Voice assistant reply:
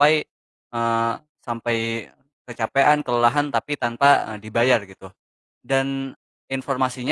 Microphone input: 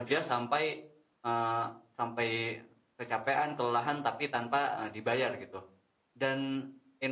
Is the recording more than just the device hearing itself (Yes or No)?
No